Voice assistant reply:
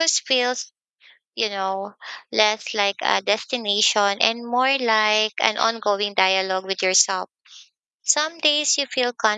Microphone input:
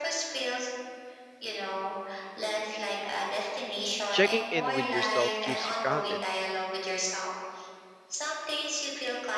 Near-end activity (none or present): present